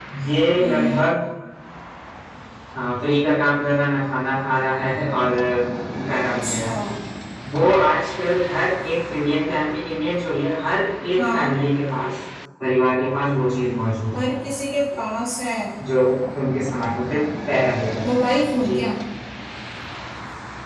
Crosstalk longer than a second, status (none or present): none